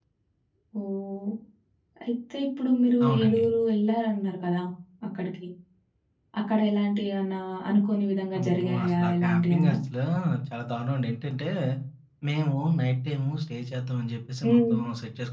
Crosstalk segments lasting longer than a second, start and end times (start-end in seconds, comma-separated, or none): 8.4-9.8